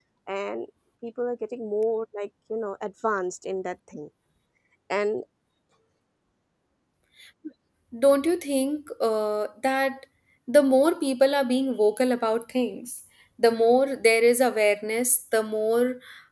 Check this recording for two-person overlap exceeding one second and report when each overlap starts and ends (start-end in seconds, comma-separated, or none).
none